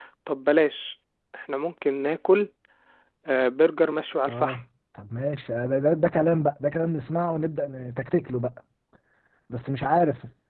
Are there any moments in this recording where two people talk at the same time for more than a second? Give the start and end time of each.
none

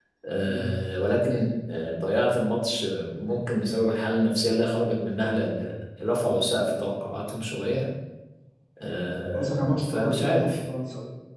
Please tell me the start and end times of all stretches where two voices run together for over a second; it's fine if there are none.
9.3-10.6

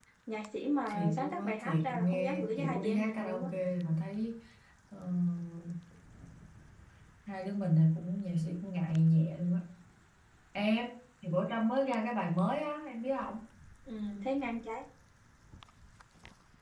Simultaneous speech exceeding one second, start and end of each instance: 0.9-3.5

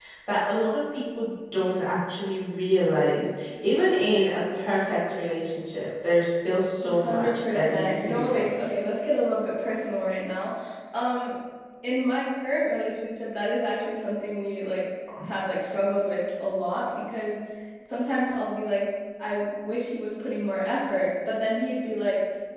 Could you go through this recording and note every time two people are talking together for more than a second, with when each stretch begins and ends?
6.8-8.7

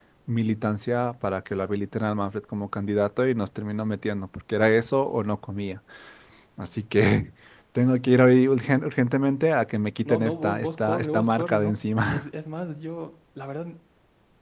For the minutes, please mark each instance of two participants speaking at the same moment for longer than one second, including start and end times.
10.1-12.2

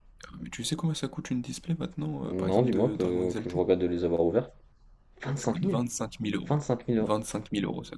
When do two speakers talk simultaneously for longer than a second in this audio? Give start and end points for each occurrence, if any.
2.3-3.6

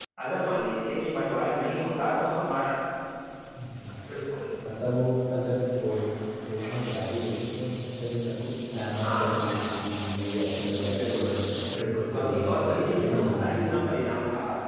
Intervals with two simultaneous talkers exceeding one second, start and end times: 10.8-13.9

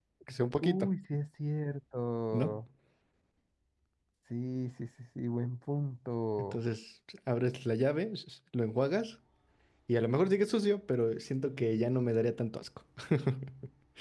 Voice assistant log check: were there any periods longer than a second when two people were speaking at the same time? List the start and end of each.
none

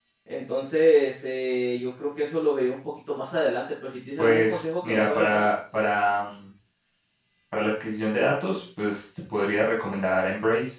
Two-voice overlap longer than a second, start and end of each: 4.2-5.5

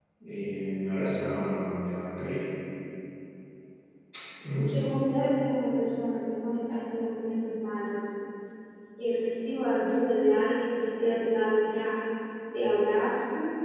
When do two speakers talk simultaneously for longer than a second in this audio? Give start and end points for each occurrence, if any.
none

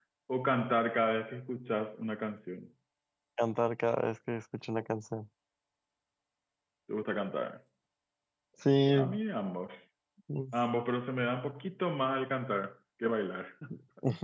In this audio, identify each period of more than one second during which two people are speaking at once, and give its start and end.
none

